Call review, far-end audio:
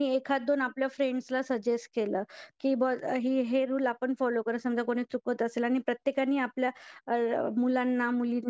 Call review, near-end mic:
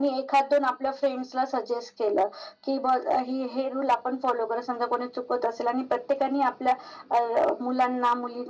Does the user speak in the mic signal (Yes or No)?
No